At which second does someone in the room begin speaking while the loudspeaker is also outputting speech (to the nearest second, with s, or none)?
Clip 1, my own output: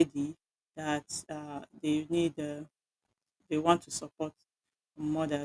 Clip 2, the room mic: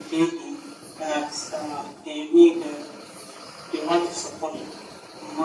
none